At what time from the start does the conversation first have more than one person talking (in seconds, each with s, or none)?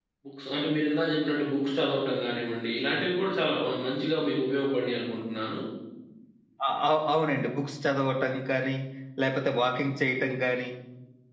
none